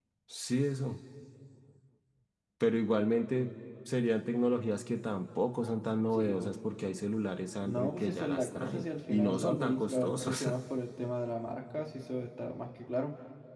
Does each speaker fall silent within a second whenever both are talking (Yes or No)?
No